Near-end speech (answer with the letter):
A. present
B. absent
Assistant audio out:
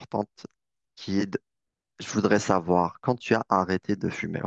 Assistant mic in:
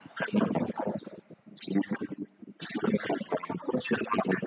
B